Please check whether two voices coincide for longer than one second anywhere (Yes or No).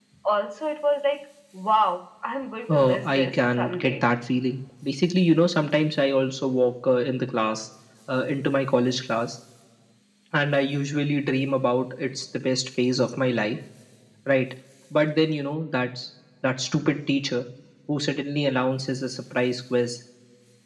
Yes